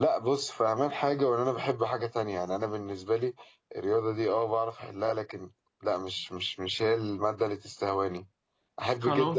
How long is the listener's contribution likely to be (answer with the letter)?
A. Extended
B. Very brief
B